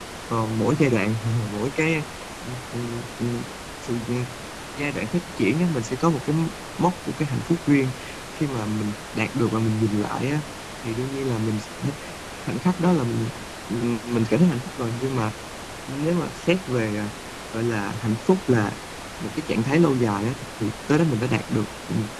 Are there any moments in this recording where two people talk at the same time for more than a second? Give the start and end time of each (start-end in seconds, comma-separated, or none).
none